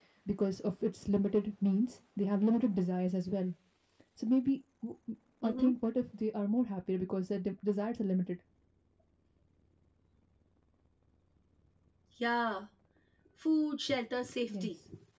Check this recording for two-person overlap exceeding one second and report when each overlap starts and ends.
none

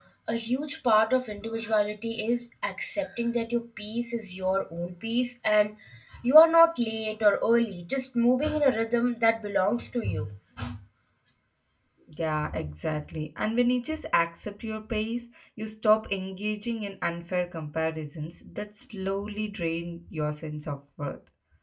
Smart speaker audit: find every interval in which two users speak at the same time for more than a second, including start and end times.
none

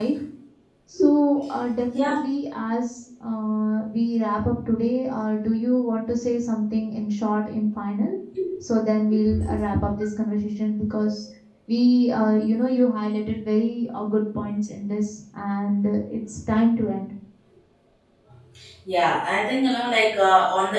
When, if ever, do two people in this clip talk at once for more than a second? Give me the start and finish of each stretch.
none

